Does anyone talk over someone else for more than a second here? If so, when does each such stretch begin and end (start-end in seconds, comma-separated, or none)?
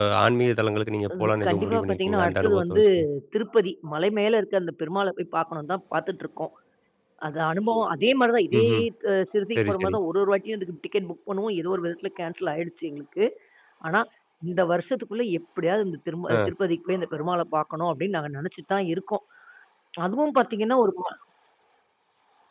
1.2-2.8